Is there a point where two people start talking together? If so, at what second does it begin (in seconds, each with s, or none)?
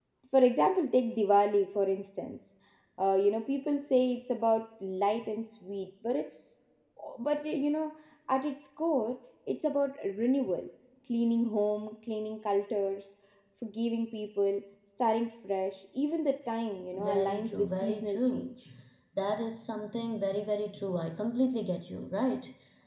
16.9 s